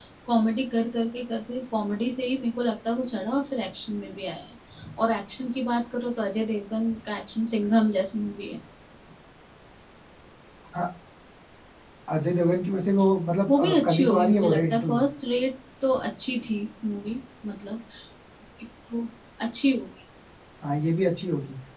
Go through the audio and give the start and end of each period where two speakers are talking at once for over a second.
13.5-15.0

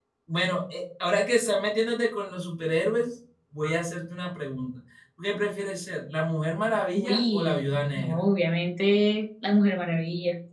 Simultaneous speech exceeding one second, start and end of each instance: 7.0-8.2

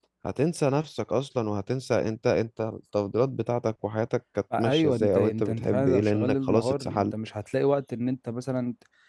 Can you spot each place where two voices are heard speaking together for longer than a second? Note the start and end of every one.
4.6-7.1

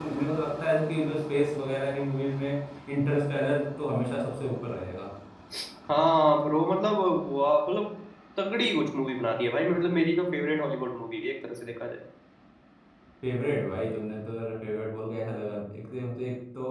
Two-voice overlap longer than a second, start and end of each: none

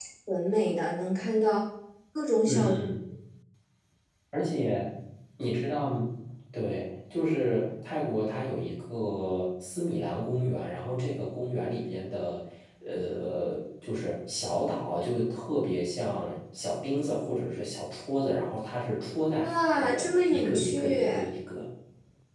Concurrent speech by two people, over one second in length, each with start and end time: 19.4-21.2

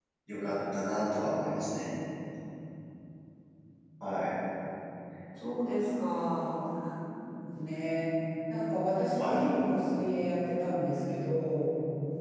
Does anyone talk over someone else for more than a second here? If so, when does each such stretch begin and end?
none

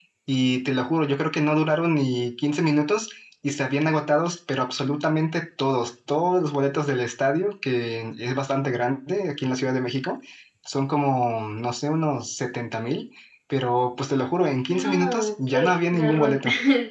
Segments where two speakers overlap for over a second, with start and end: 14.7-16.4

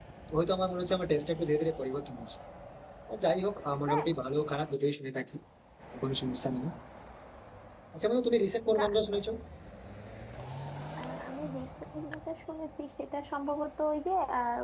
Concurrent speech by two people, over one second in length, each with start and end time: none

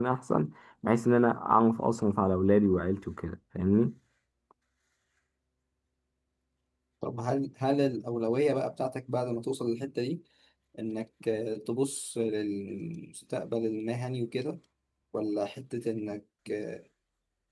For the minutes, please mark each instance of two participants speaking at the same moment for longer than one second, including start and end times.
none

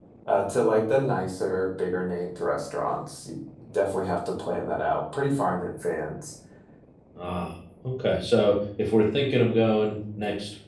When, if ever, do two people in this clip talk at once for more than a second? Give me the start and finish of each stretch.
none

